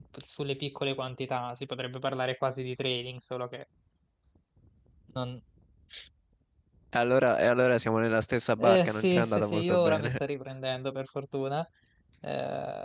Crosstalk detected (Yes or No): Yes